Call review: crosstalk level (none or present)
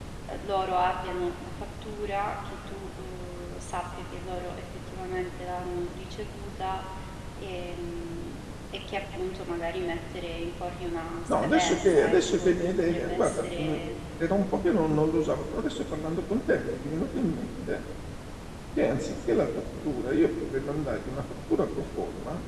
present